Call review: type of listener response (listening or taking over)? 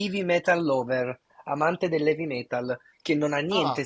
listening